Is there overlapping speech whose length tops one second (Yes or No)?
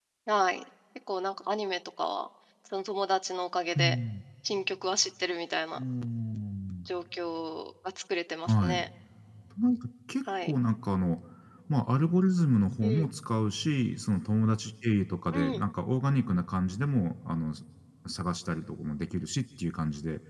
No